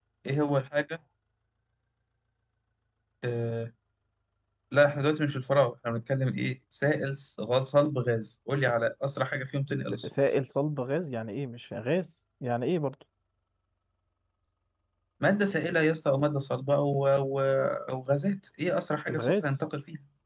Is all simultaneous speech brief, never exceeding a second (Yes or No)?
Yes